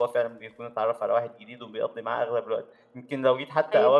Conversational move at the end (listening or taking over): listening